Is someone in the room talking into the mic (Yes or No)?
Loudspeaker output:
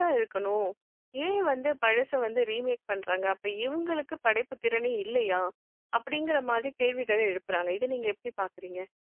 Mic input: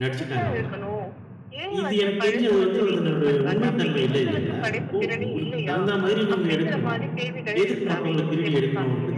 Yes